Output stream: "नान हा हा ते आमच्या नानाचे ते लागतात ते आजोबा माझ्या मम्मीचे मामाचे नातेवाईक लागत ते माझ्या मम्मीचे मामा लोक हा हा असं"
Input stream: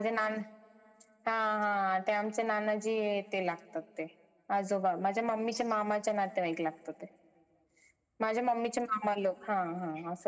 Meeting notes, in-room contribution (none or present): none